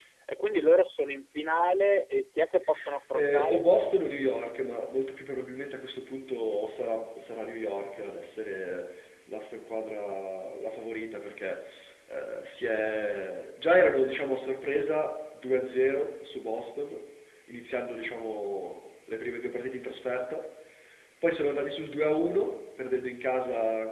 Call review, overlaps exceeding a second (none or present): none